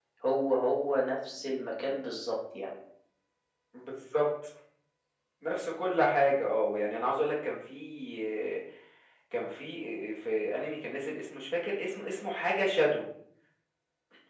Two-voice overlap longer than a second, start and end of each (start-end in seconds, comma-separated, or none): none